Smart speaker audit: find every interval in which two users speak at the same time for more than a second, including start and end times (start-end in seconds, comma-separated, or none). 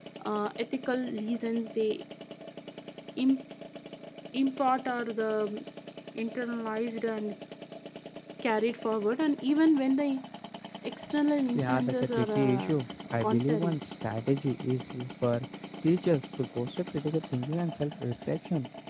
11.5-12.7